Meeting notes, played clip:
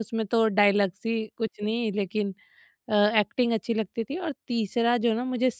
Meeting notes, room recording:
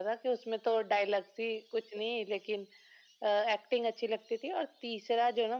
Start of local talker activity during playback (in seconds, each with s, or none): none